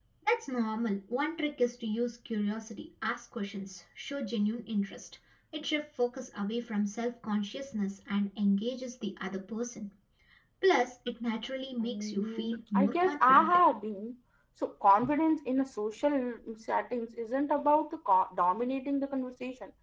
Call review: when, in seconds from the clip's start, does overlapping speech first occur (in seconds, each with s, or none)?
11.8 s